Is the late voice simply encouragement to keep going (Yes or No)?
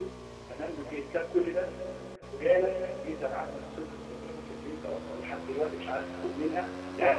Yes